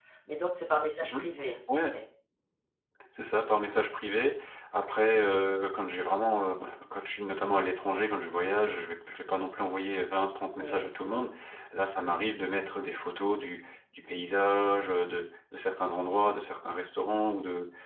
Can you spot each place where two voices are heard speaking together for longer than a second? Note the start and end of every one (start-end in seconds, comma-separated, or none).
none